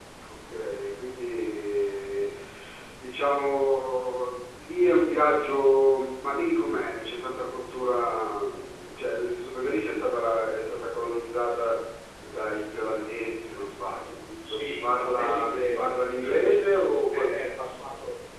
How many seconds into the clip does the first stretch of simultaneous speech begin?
14.4 s

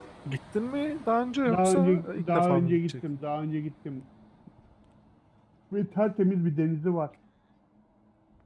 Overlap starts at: 1.4 s

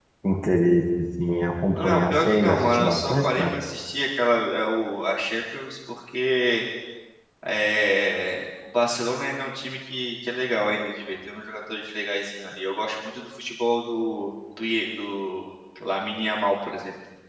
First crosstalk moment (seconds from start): 1.8 s

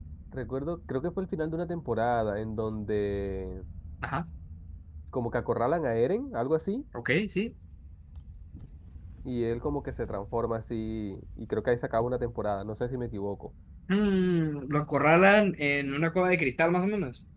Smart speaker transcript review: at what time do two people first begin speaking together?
none

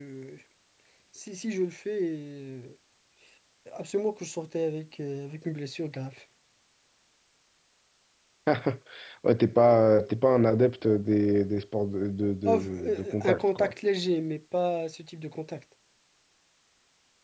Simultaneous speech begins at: 12.4 s

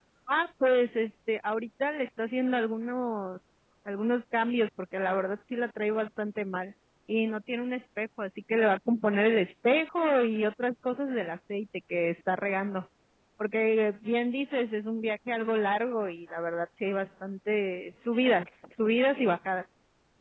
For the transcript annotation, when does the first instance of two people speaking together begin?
none

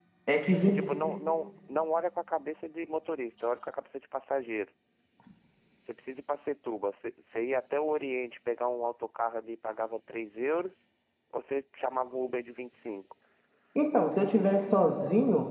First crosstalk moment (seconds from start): none

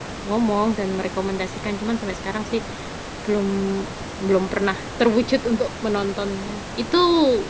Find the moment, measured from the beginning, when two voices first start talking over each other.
none

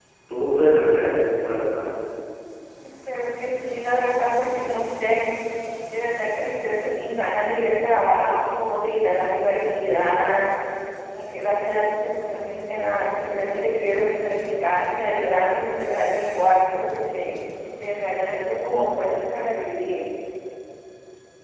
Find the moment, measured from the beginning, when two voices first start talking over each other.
none

